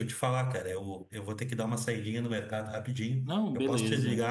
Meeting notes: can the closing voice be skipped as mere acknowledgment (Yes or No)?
Yes